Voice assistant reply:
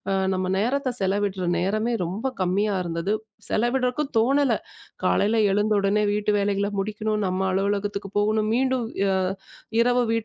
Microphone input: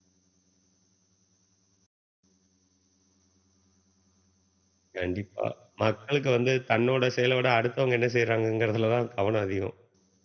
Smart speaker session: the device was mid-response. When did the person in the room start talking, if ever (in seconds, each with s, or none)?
5.0 s